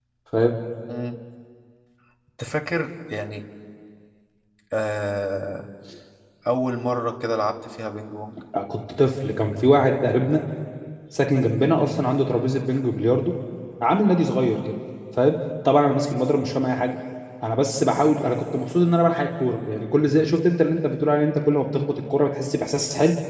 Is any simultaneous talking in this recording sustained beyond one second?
No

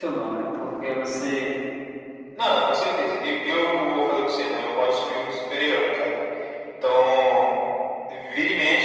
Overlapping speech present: No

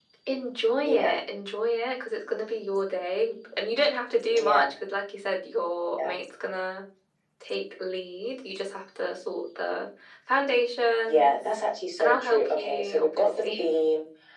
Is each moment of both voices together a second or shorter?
No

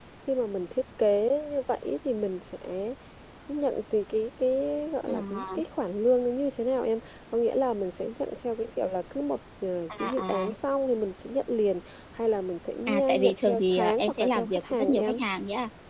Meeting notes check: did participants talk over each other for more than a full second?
Yes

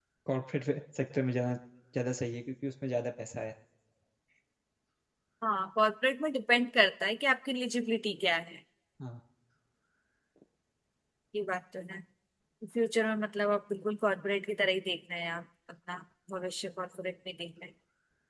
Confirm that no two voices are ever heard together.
Yes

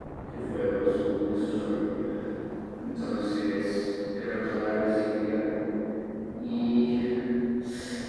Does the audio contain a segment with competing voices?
No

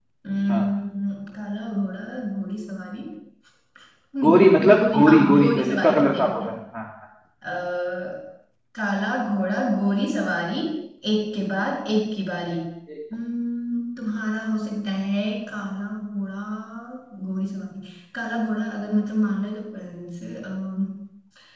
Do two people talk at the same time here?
Yes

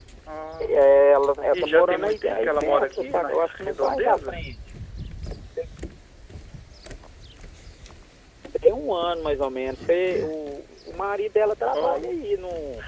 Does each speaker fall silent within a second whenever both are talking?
No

